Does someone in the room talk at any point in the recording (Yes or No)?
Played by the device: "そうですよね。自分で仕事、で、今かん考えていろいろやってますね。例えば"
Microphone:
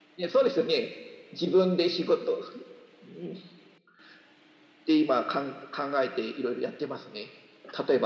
No